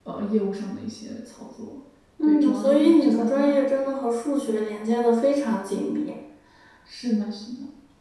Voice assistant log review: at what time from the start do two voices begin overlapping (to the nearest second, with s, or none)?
2 s